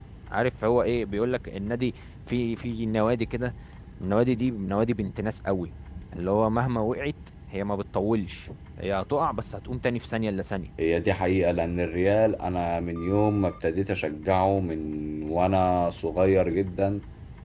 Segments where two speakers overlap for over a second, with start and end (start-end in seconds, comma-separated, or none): none